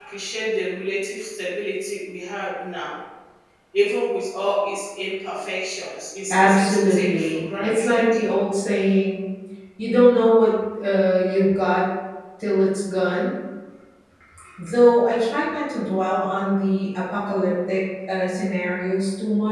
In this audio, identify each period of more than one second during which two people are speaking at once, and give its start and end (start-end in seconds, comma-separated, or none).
6.3-8.1